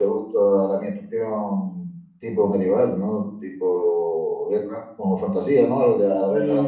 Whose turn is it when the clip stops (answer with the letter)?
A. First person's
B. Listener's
B